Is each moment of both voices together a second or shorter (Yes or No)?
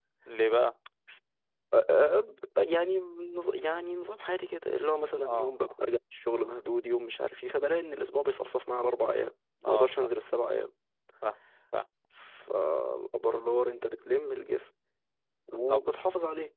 Yes